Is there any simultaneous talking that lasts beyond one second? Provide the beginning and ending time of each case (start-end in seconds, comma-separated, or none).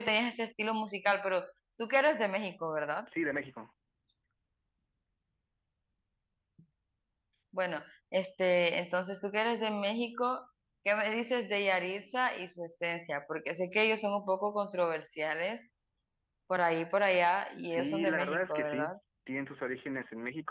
17.7-18.9